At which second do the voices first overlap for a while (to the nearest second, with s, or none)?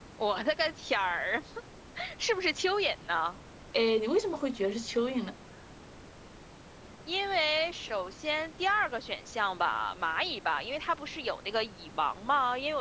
none